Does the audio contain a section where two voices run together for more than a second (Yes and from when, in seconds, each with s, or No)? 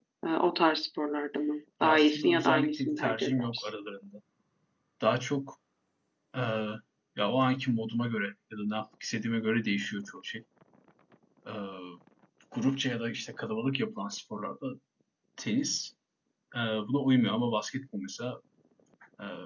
Yes, from 1.8 s